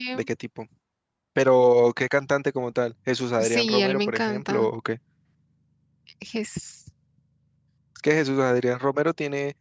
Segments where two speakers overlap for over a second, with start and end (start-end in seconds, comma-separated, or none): 3.4-4.7